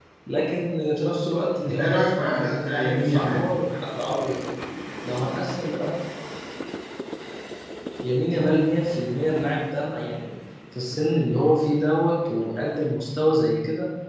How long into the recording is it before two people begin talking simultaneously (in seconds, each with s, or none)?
1.6 s